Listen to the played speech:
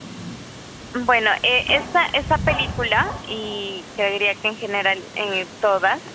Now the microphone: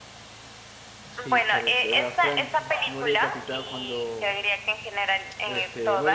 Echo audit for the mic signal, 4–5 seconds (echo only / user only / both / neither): both